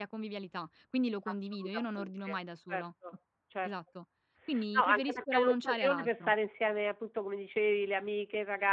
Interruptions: present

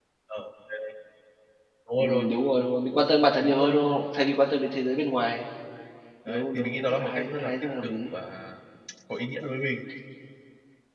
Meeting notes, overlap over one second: present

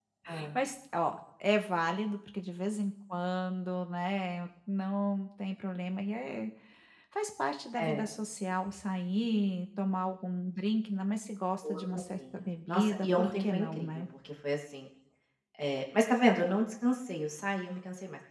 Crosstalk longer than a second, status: present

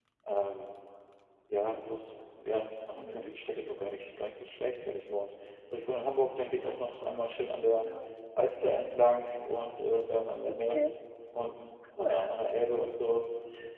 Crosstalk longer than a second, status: none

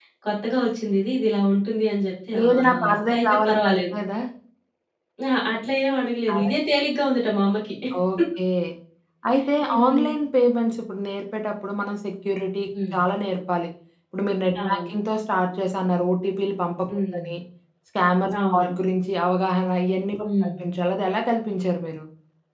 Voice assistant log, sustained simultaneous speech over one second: present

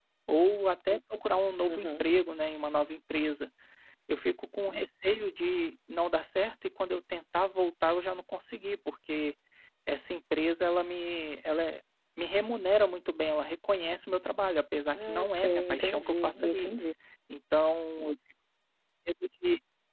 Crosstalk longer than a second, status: present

